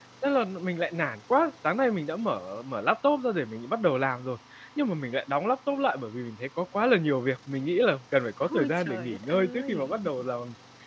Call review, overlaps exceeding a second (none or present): present